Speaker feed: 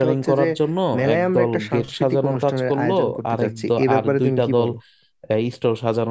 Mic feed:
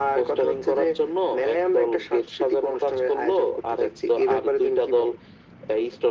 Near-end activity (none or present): none